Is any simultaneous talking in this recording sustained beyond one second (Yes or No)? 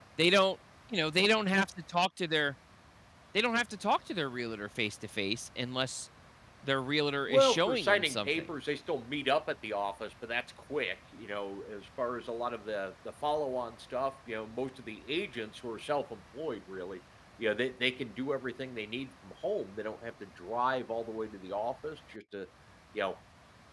Yes